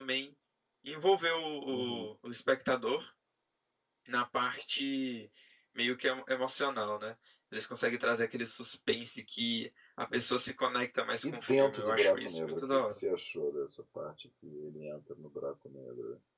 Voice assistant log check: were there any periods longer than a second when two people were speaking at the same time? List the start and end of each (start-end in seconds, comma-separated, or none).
11.2-13.0